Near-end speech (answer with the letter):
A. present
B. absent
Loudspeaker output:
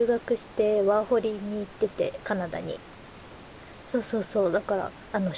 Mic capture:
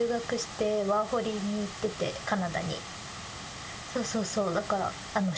B